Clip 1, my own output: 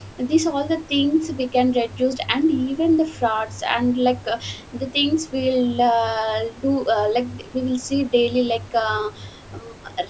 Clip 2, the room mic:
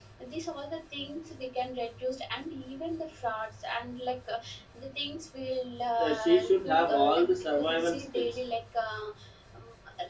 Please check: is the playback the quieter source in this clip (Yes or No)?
Yes